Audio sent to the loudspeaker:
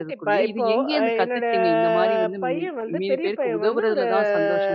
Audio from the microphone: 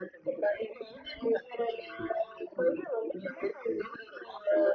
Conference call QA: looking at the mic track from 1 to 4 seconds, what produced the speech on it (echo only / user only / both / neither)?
echo only